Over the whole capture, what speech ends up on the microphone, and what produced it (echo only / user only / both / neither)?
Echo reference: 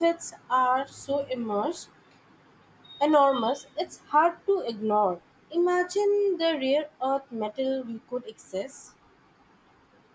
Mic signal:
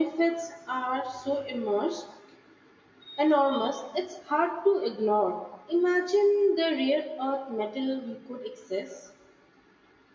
echo only